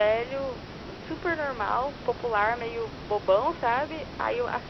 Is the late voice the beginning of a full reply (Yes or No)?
No